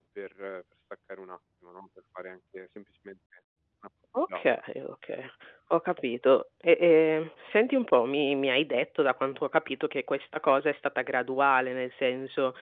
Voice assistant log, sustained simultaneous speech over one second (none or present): none